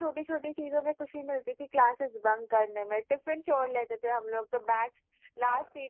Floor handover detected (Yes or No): No